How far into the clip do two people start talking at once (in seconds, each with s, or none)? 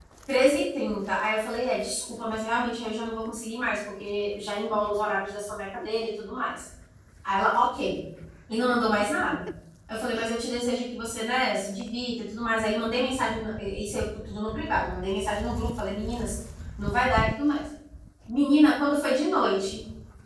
none